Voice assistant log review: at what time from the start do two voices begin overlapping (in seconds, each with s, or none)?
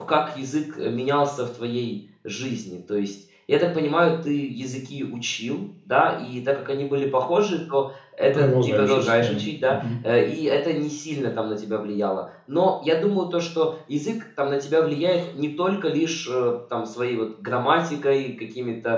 8.3 s